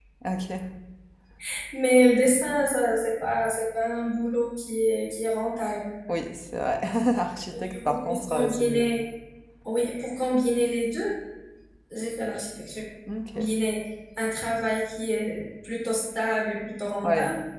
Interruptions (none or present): present